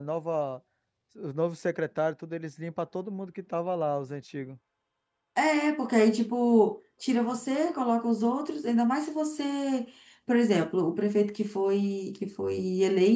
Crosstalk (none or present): none